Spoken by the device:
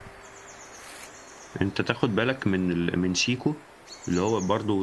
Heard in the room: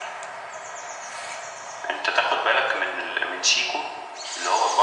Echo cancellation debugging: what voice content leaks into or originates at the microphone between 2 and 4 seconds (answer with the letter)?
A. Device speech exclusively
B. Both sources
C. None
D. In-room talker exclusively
A